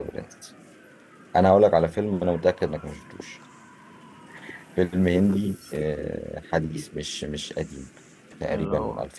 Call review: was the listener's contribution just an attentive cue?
Yes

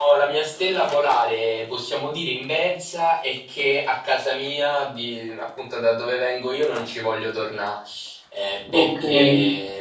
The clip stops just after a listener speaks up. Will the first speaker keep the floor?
Yes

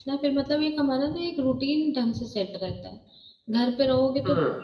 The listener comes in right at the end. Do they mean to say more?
No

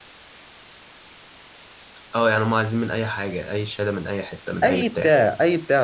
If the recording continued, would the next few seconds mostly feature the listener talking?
Yes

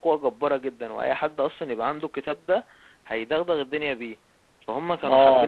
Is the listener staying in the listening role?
No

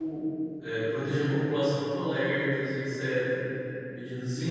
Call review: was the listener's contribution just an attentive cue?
No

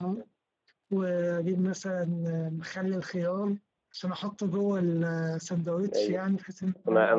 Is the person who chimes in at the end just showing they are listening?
No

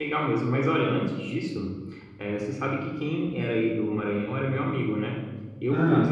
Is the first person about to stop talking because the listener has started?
No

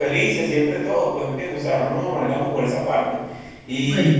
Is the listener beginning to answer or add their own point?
No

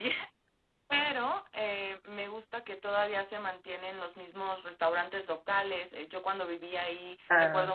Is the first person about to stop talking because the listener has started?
No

